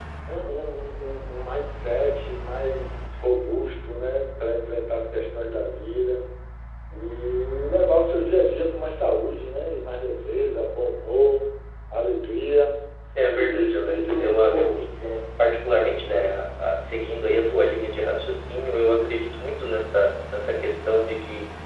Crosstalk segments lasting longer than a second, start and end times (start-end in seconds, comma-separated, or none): 13.3-14.8